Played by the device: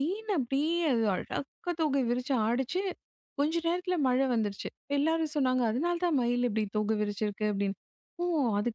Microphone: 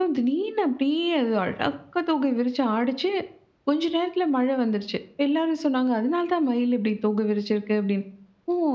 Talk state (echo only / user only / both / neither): echo only